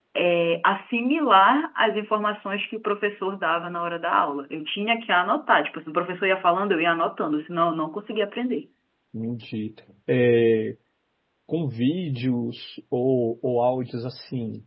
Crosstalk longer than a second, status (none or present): none